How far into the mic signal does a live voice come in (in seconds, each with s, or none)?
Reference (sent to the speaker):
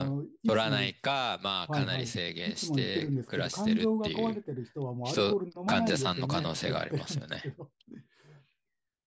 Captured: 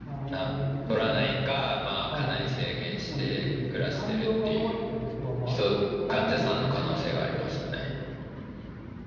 none